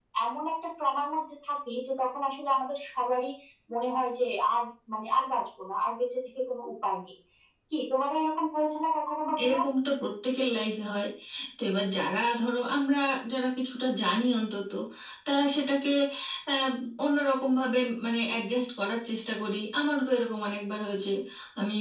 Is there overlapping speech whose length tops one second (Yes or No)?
No